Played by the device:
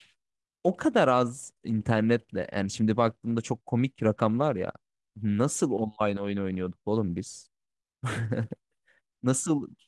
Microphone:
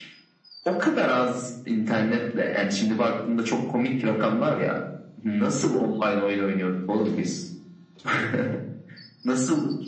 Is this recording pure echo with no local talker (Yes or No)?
Yes